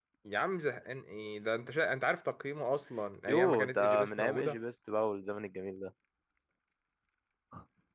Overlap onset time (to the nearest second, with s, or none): 3 s